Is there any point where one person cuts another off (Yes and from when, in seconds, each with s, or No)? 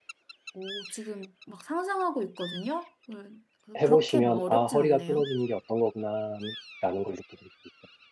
Yes, from 3.8 s